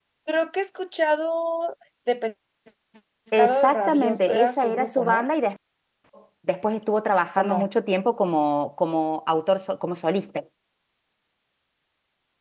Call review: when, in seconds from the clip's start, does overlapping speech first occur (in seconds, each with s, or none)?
3.4 s